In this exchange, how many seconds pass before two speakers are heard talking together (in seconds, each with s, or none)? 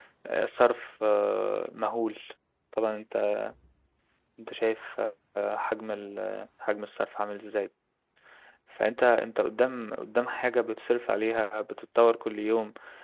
none